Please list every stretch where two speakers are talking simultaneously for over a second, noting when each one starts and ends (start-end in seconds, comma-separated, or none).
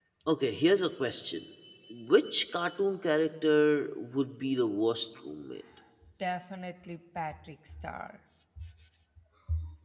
none